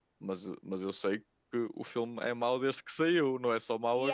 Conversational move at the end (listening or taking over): taking over